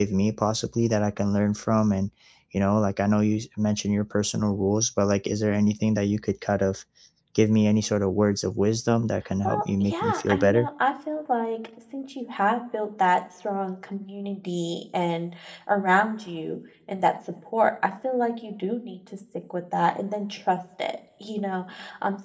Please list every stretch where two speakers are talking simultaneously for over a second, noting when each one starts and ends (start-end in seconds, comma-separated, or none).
9.4-10.7